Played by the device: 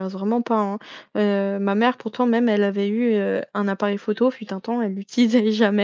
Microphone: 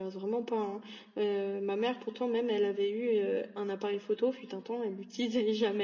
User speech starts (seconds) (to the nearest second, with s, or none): none